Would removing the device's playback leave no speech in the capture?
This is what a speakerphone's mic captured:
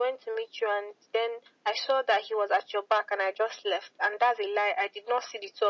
Yes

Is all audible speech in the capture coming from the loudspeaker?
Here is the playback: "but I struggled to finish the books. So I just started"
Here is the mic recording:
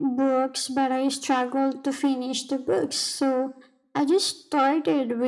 Yes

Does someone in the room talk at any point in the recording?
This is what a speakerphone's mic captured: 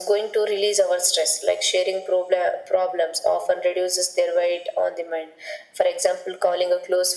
No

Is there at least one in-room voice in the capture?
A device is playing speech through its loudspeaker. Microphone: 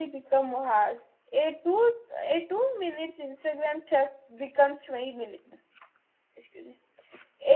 Yes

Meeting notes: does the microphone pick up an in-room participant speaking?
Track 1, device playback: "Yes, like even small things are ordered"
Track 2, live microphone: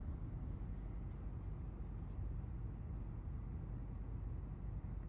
No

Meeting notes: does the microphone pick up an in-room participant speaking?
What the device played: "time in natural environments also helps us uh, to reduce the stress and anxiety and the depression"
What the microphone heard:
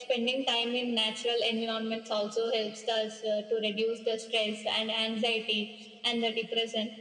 No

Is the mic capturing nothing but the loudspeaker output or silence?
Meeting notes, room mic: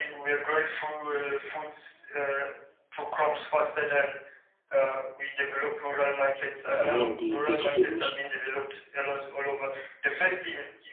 No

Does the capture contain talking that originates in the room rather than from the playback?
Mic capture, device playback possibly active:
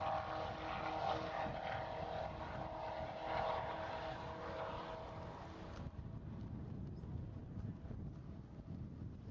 No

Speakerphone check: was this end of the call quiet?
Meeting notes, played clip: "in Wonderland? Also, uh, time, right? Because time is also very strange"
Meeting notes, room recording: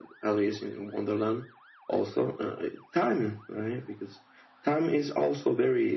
Yes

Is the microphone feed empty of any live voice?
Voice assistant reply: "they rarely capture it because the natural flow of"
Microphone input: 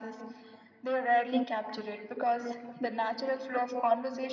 Yes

